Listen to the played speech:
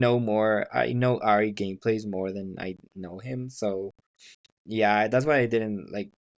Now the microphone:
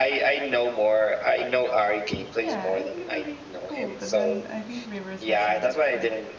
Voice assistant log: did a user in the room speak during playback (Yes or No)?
Yes